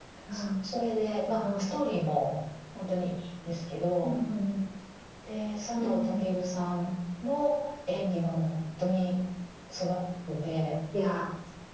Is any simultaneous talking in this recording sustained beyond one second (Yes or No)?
No